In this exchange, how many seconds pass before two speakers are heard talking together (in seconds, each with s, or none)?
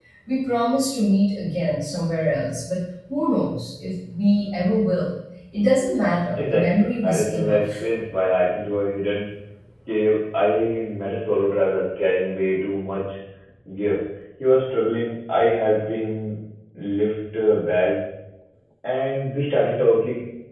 6.4 s